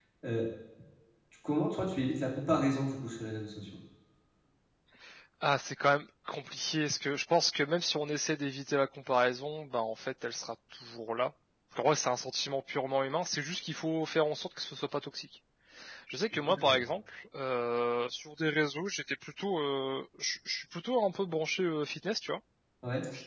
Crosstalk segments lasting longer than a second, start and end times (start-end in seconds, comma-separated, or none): none